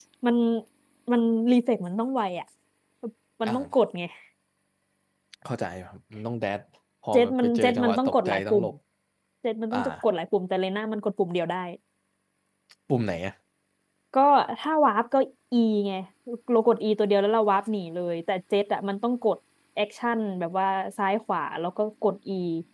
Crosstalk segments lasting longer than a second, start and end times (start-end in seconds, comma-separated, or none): 7.1-8.7